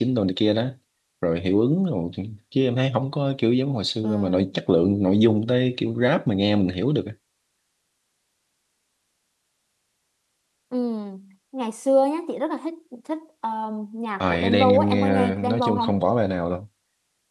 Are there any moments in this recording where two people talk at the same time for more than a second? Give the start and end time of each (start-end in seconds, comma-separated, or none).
14.2-15.9